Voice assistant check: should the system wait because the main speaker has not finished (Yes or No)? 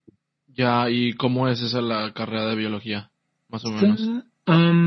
No